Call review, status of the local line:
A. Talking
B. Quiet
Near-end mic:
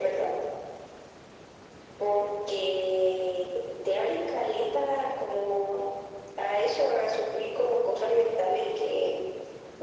B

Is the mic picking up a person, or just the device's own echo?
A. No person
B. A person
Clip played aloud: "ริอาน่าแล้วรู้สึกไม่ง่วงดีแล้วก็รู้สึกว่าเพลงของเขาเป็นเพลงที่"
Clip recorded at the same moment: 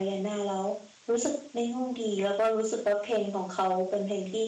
A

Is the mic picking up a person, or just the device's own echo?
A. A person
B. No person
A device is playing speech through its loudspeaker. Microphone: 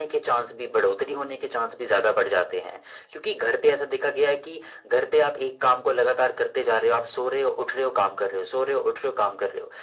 B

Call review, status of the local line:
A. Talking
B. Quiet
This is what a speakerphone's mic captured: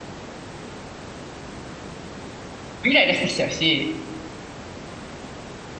A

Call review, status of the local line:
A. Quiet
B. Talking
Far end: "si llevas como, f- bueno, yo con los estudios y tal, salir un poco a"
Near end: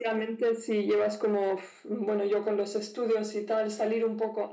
A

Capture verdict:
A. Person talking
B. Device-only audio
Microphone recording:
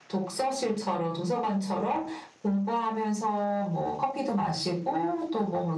B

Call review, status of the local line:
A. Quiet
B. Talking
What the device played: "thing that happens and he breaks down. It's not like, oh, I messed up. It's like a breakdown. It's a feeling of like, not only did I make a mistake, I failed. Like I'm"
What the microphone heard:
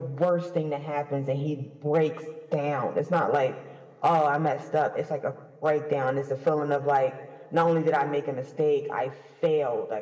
A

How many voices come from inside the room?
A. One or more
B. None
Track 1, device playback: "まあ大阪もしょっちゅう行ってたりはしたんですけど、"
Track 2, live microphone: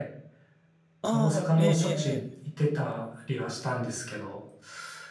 A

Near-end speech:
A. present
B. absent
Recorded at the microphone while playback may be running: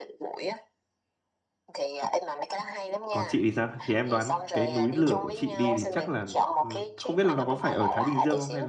A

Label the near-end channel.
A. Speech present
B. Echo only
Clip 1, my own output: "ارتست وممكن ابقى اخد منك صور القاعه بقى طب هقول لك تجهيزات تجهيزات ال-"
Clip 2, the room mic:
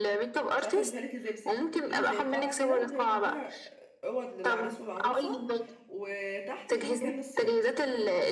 A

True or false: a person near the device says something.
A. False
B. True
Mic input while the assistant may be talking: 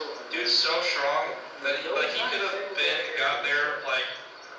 A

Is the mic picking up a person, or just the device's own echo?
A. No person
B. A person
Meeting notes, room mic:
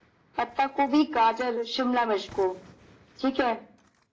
A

